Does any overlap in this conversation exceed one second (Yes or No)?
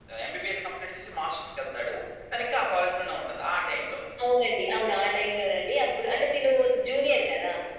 No